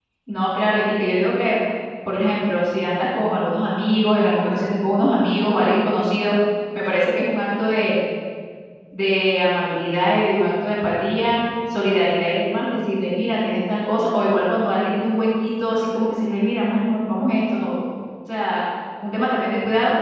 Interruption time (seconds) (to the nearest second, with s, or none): none